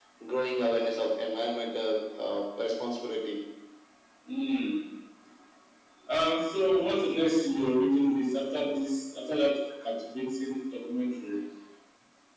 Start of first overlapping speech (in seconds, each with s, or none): none